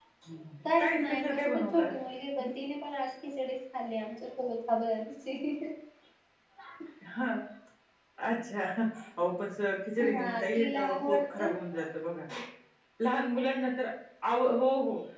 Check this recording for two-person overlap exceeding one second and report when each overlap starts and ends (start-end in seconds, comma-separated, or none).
0.6-1.9, 10.1-11.5